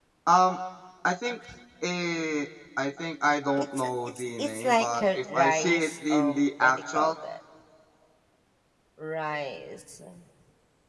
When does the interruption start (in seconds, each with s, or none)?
3.6 s